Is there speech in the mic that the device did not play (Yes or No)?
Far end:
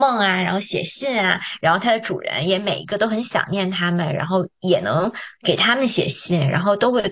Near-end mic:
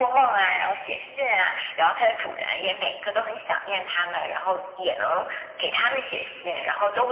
No